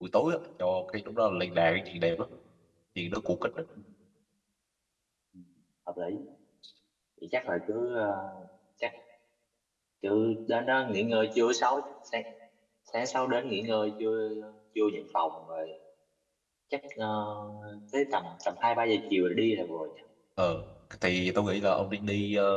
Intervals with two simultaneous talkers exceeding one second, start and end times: none

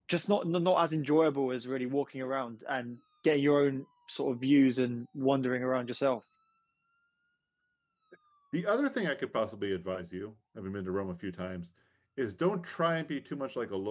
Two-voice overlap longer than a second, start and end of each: none

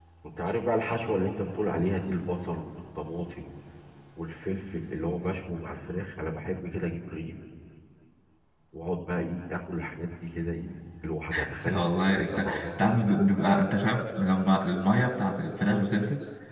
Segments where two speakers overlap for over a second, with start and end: 11.7-12.9

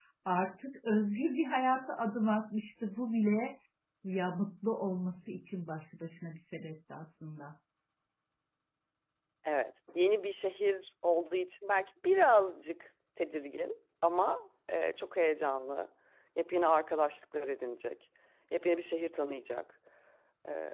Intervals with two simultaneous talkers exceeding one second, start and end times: none

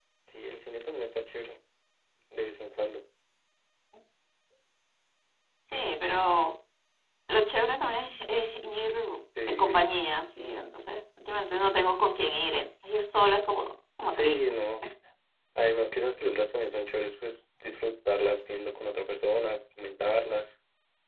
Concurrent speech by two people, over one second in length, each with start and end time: none

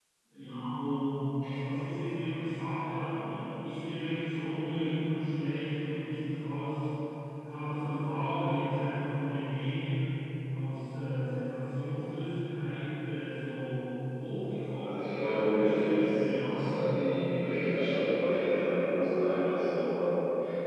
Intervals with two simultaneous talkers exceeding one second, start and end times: 14.8-16.8

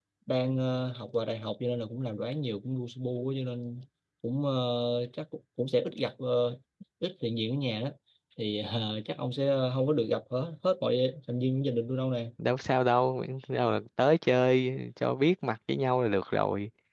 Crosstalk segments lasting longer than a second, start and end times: none

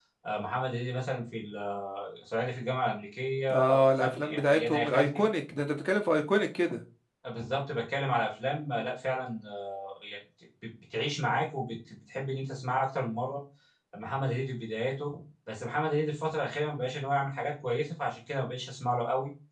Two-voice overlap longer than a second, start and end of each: 3.5-5.2

